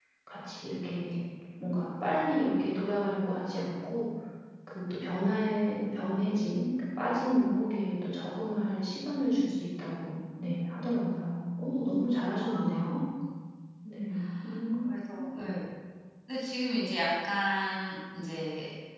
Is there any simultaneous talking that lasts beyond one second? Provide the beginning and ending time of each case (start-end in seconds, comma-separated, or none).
none